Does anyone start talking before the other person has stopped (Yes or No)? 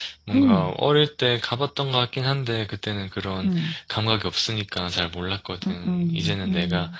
Yes